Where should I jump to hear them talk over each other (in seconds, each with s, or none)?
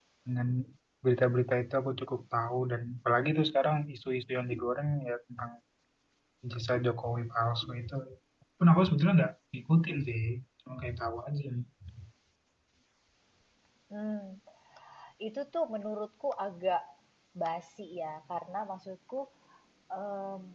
none